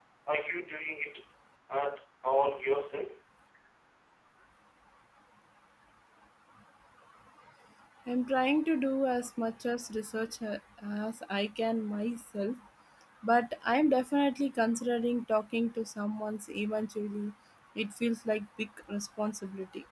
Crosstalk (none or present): none